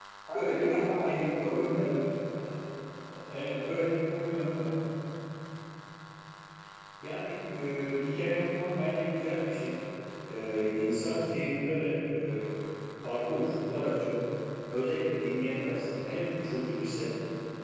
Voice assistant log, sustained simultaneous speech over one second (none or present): present